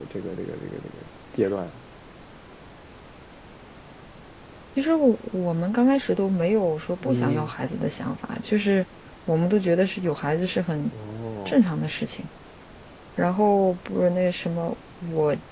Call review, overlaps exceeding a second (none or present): none